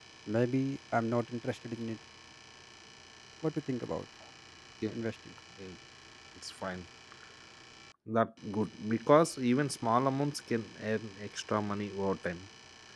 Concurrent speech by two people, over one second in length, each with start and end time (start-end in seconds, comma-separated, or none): none